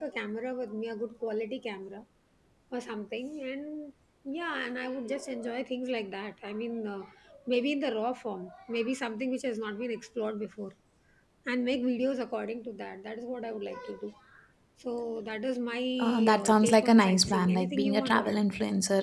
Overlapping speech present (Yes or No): Yes